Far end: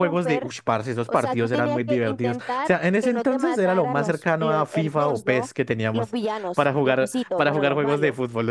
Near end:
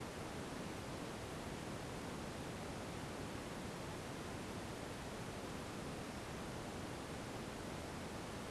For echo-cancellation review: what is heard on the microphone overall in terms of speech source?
neither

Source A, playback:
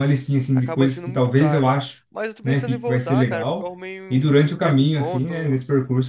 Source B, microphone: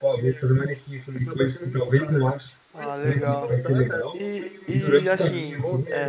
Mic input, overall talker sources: both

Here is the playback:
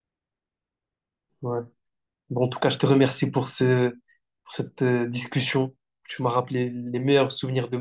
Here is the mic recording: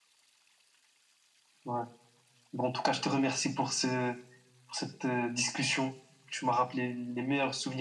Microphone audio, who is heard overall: echo only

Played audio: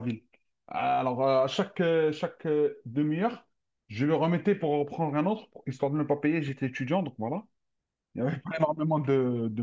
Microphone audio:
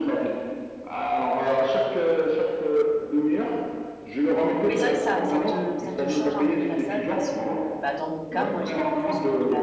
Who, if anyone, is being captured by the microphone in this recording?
both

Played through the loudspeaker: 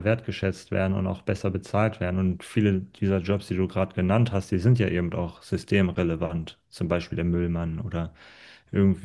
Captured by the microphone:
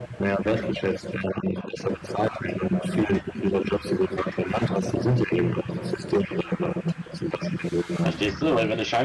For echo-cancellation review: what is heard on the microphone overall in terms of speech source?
both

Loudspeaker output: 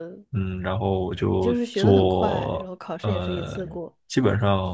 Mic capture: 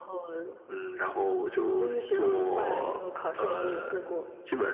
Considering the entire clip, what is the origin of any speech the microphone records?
echo only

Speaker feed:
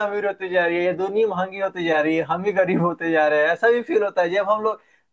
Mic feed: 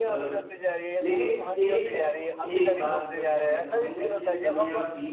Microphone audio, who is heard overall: both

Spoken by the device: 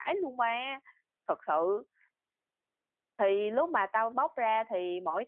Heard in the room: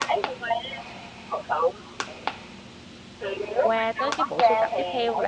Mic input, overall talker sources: both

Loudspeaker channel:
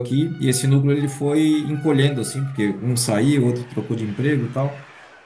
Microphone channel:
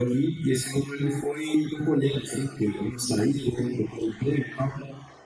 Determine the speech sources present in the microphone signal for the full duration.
echo only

